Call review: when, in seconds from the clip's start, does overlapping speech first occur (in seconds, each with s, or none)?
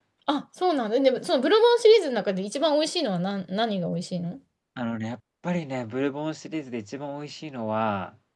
none